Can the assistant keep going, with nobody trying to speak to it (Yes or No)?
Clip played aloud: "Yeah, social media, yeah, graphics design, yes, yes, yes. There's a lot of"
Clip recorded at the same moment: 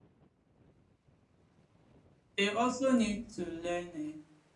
No